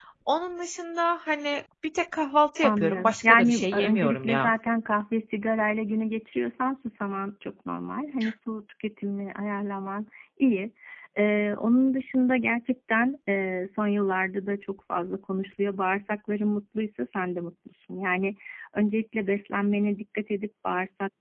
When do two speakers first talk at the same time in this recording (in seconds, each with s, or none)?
2.6 s